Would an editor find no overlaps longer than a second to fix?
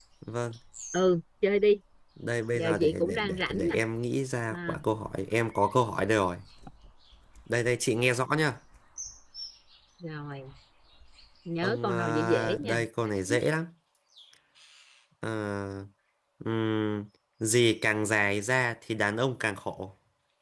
No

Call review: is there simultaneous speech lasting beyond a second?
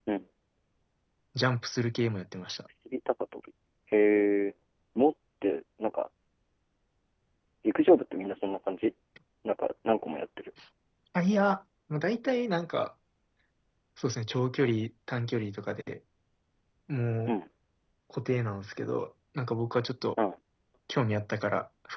No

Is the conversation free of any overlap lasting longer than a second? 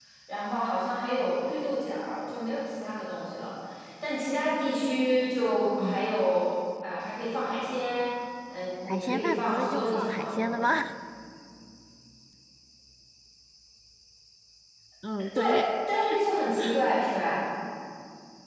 No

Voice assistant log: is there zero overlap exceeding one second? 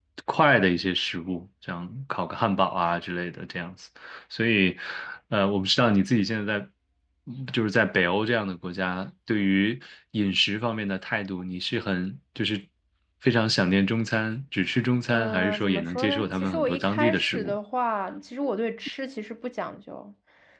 No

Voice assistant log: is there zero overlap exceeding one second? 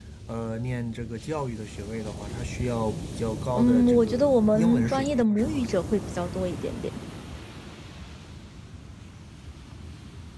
No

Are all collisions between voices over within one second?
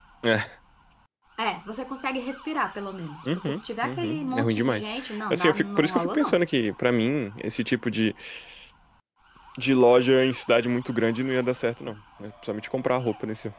No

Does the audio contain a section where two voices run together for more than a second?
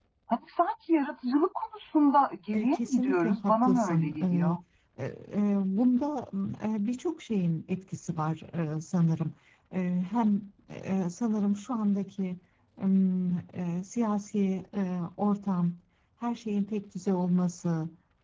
Yes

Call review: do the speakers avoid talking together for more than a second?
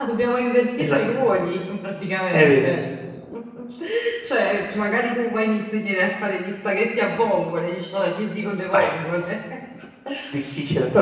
Yes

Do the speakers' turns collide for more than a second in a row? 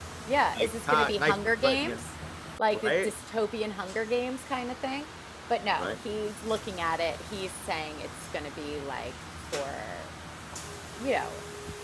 Yes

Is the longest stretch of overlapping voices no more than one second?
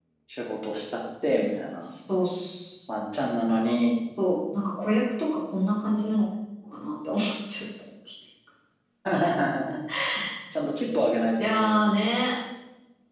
Yes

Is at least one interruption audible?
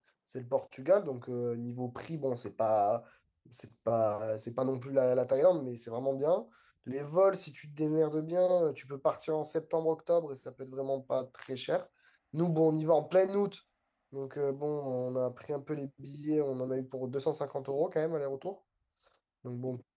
No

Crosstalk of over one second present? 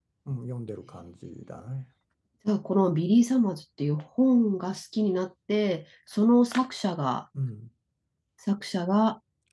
No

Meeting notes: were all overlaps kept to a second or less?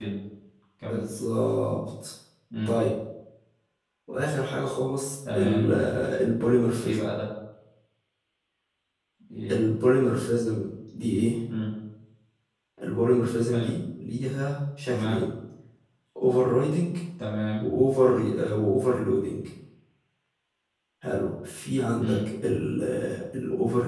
Yes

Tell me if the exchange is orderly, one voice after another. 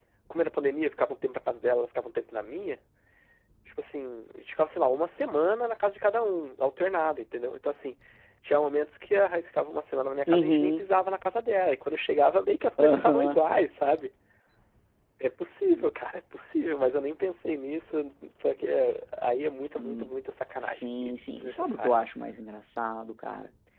No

